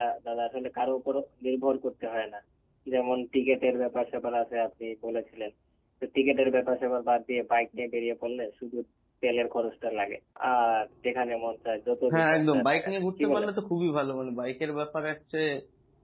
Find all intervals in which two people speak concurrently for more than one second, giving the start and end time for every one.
12.1-13.5

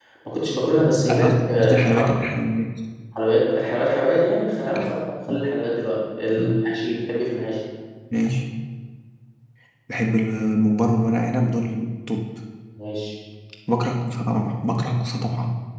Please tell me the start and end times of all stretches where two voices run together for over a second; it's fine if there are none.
0.7-2.1

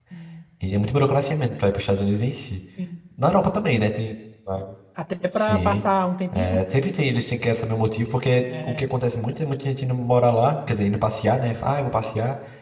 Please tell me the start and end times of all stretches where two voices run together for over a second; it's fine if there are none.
none

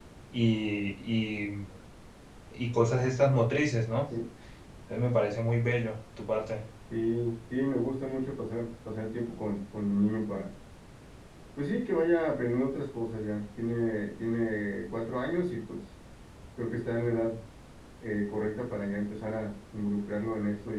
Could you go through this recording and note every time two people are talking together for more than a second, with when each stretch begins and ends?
none

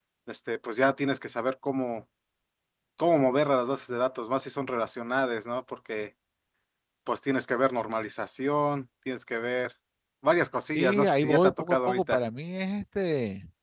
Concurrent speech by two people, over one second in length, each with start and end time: 10.6-12.2

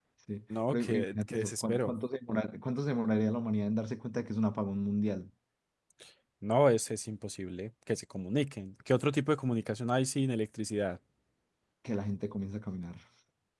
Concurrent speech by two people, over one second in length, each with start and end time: 0.7-1.9

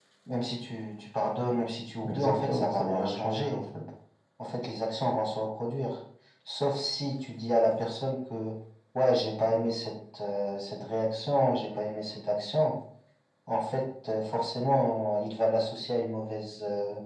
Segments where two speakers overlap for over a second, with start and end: 2.1-3.6

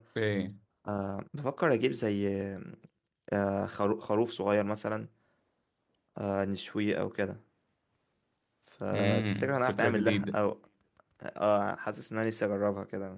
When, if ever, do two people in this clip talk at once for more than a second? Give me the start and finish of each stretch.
8.9-10.4

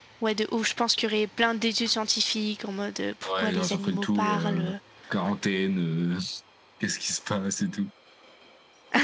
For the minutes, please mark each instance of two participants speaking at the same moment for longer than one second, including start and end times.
3.3-4.6

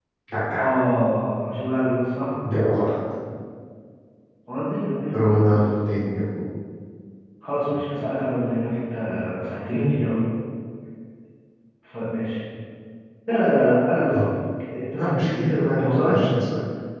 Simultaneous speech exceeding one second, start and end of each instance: 15.0-16.2

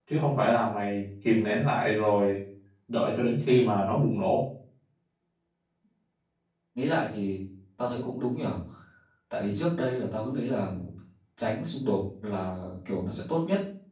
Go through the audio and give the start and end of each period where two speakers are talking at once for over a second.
none

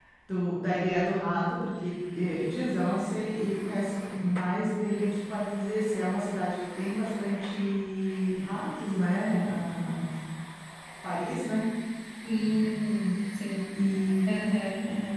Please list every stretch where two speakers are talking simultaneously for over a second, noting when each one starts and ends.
none

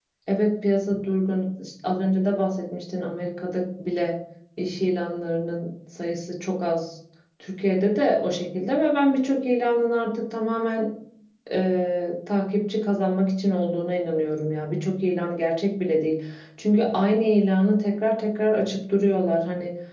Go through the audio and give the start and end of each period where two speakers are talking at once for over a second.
none

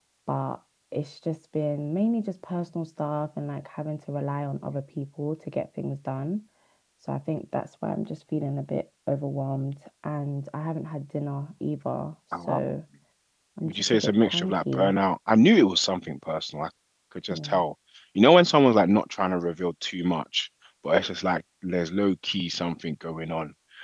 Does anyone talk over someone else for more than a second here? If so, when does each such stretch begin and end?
13.6-14.9

